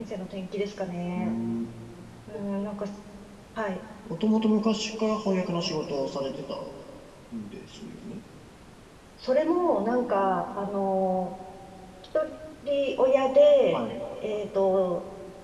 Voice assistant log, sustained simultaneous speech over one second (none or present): none